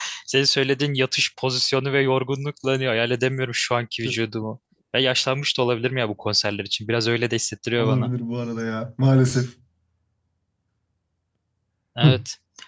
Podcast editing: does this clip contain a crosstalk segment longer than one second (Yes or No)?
No